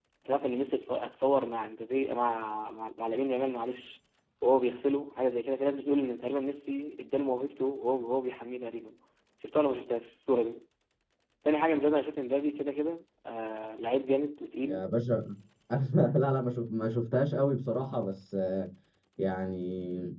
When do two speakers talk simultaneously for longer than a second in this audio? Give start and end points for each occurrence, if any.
none

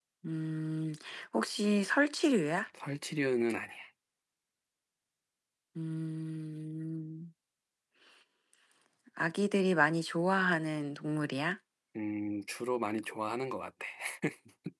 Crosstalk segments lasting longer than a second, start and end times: none

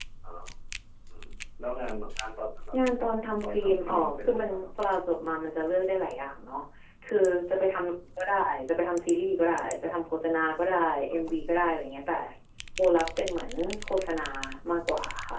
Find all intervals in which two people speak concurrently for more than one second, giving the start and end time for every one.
3.4-4.7

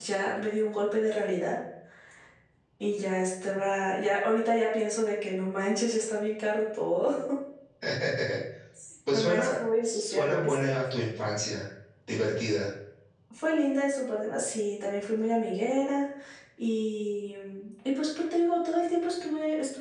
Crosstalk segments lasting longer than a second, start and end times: 9.1-10.7

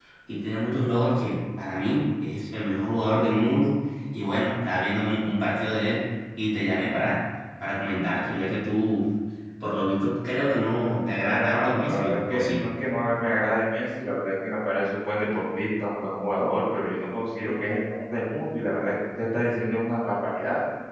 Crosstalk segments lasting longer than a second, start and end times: 11.2-12.6

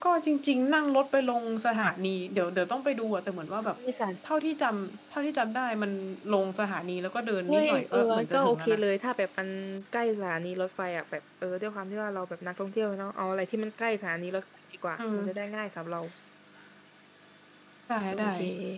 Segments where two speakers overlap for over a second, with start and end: 7.5-8.8

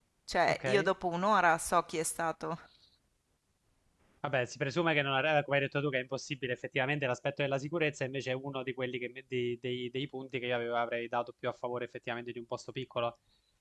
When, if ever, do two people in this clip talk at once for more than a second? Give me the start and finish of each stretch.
none

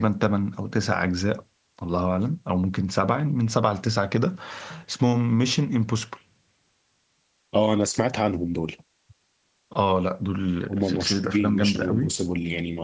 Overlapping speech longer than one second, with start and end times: 10.7-12.1

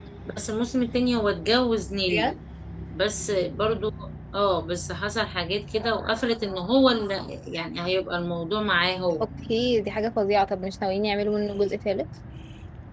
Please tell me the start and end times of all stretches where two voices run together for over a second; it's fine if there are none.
none

